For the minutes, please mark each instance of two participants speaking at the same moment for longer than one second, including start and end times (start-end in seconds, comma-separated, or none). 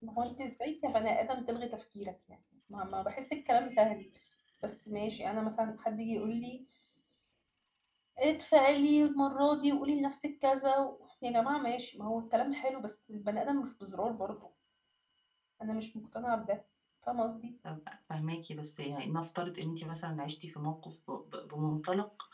none